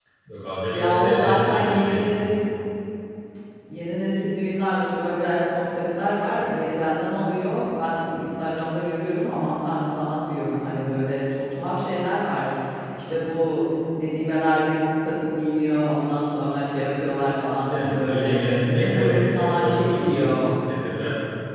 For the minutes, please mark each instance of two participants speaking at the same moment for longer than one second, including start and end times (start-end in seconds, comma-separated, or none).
0.7-2.0, 17.7-20.4